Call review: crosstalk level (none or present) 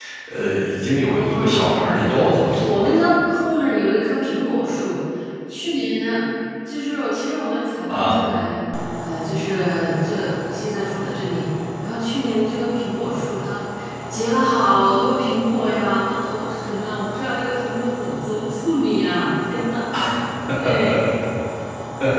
present